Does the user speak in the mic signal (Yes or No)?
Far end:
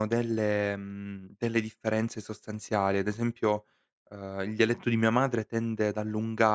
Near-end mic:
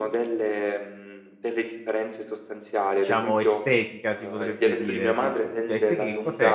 Yes